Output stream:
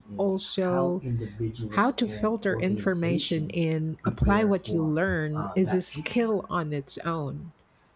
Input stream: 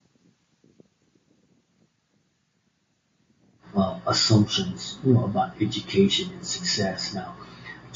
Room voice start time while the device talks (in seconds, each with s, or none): 3.7 s